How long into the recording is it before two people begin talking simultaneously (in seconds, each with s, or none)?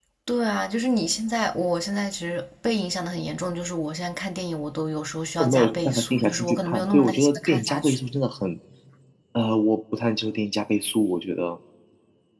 5.4 s